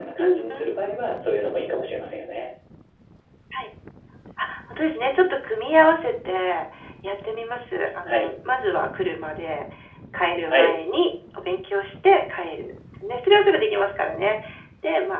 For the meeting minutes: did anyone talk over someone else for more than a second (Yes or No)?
No